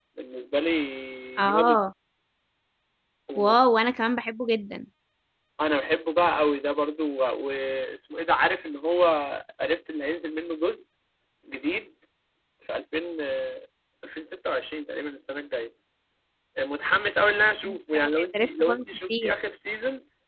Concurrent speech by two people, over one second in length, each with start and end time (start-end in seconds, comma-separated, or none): 17.6-19.3